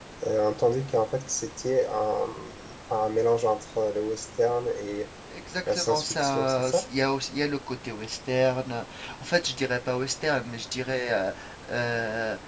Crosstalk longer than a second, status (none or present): present